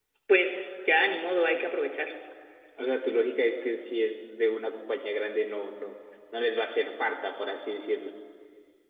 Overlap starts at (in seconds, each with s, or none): none